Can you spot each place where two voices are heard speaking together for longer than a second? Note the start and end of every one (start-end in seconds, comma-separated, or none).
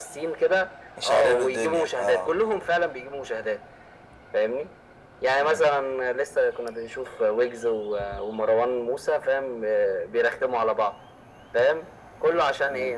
1.0-2.3